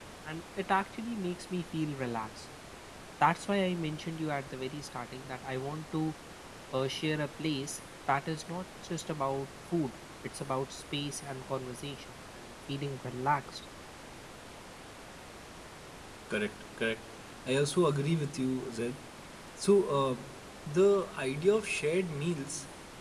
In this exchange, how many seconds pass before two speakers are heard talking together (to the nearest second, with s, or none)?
none